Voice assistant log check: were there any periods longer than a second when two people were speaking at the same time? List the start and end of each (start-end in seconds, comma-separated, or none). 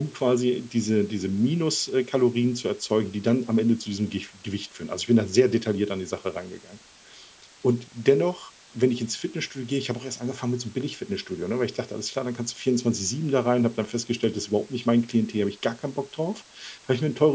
none